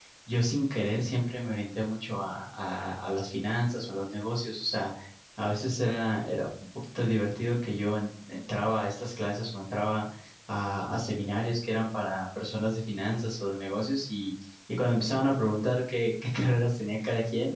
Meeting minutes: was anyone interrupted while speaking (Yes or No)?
No